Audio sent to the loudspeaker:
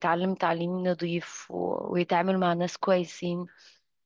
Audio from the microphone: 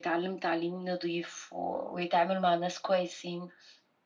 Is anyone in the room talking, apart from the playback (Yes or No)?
No